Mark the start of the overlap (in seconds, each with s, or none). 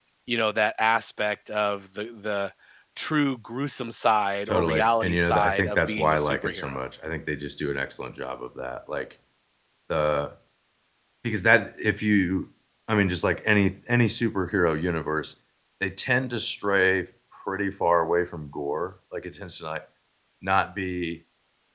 4.5 s